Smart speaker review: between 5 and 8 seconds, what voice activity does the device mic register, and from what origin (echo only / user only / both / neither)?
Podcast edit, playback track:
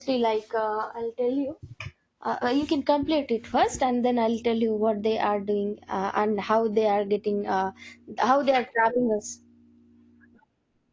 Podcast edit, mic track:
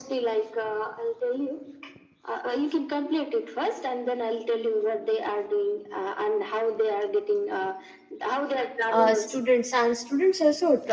echo only